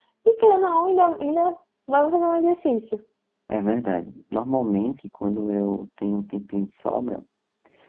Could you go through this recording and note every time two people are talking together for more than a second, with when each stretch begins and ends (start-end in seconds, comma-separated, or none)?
none